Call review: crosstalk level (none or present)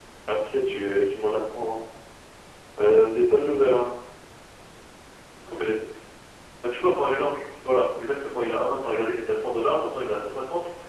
none